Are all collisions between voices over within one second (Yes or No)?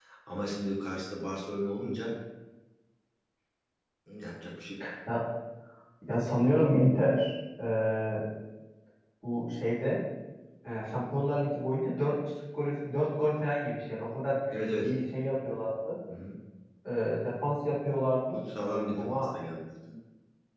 Yes